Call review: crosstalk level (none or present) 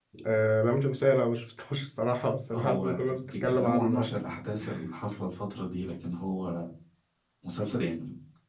present